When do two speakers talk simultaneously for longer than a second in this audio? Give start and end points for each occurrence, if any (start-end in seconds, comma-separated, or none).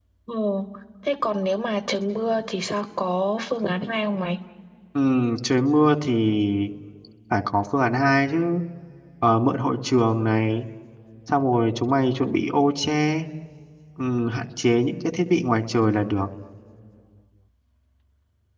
none